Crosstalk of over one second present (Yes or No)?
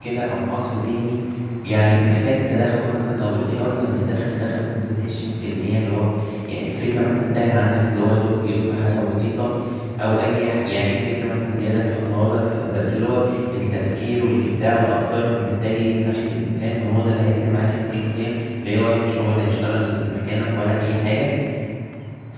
No